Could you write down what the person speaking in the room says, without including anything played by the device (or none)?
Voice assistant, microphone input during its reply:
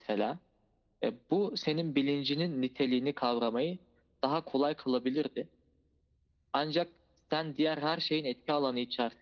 none